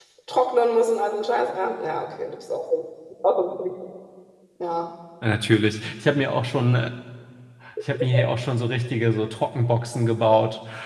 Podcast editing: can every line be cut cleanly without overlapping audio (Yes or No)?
Yes